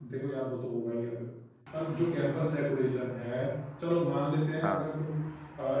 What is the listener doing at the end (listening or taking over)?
listening